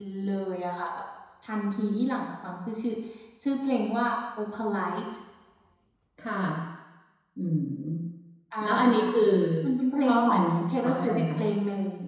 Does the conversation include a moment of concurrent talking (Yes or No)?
Yes